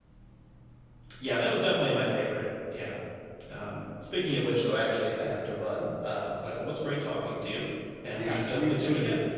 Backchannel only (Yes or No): No